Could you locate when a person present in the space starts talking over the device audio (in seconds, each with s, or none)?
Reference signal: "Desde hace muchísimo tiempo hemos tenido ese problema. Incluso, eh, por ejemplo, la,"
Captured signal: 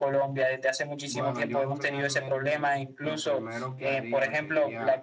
1.1 s